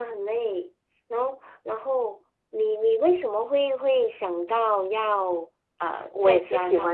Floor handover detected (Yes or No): Yes